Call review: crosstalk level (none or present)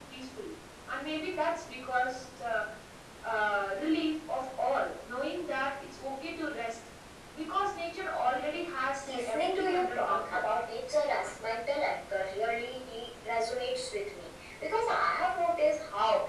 present